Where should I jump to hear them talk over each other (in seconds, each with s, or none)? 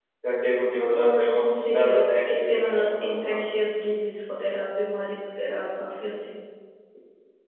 0.7 s